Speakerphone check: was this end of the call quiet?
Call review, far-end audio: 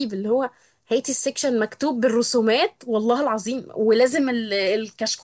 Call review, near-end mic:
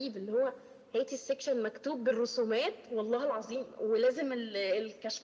Yes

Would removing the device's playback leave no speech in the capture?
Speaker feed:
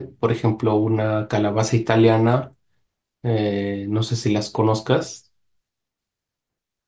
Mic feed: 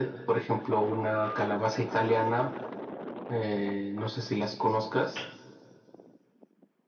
Yes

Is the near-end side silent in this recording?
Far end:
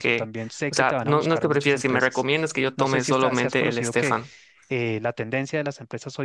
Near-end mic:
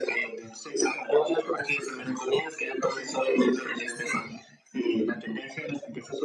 Yes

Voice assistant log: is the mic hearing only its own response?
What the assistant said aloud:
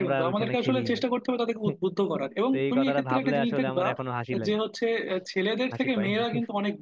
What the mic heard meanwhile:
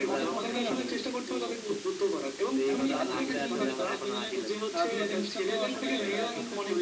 No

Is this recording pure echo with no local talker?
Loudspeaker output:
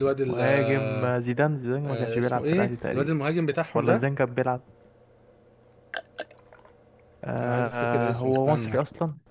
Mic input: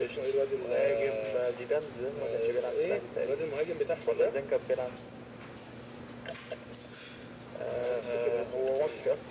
Yes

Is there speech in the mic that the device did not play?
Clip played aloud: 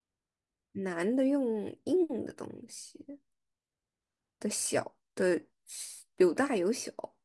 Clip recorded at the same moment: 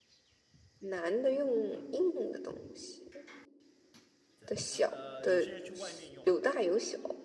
Yes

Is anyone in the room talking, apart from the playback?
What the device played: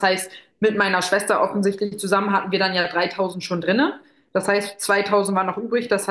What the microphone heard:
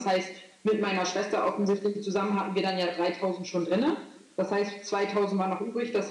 No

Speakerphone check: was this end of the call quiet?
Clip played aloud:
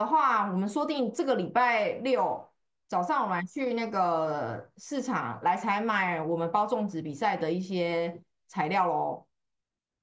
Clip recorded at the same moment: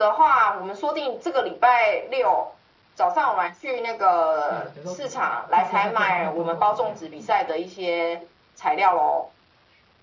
No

